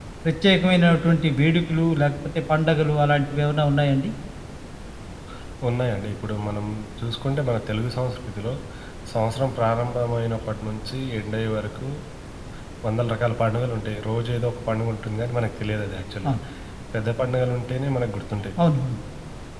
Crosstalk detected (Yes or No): No